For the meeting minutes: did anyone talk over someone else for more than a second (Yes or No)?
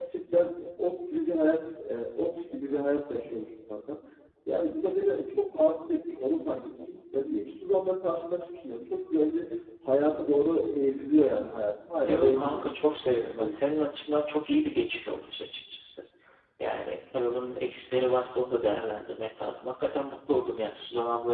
Yes